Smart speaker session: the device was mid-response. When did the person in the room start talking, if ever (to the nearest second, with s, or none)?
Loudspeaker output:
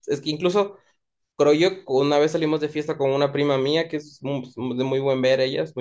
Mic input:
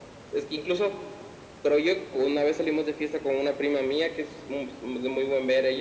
none